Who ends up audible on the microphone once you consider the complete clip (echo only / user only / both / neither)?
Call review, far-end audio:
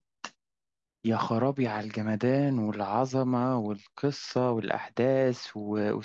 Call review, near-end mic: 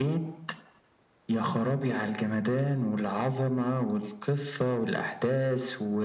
echo only